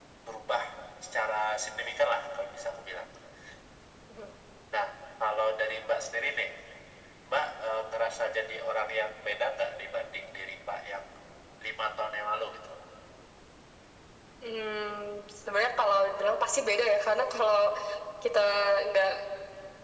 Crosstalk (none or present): none